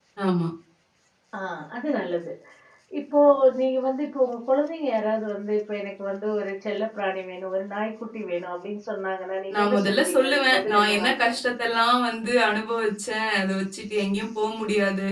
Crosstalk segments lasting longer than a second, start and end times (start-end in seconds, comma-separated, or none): 9.6-11.4